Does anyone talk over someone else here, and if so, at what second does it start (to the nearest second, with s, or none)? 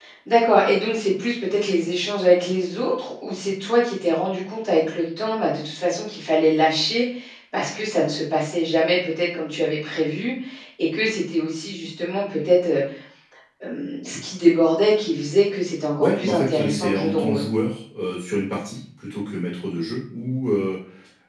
16 s